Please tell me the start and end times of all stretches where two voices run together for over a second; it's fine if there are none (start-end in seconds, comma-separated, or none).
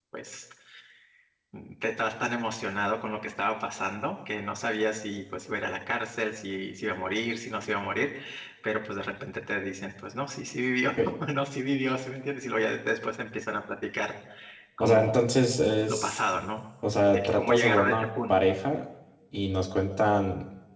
17.1-18.4